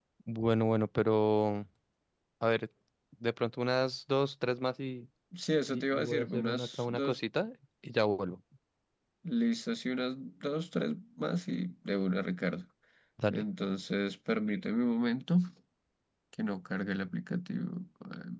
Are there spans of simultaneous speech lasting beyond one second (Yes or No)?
Yes